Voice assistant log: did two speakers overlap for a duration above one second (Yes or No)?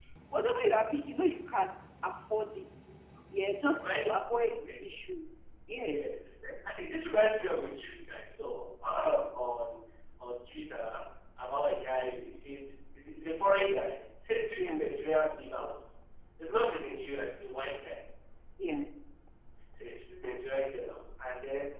No